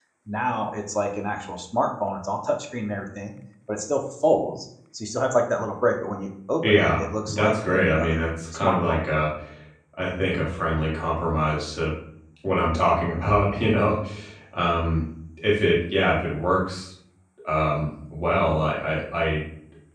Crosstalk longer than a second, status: present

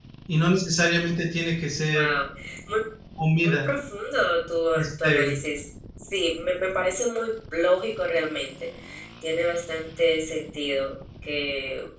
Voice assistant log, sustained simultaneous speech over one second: none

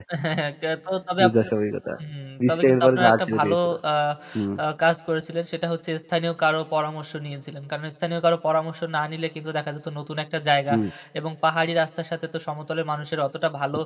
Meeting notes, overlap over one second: present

